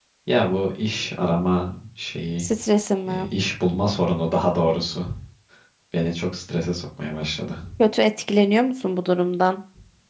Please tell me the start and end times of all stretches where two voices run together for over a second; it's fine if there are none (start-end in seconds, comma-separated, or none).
none